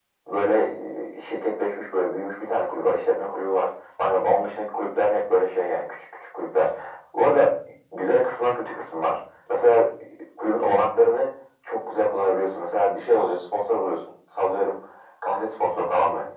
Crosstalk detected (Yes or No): No